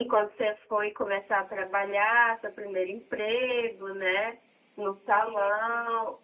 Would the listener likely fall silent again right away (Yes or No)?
Yes